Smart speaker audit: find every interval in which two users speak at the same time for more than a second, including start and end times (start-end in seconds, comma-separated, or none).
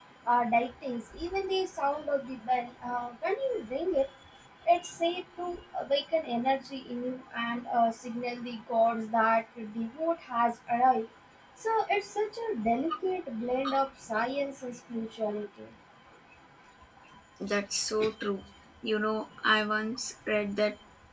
none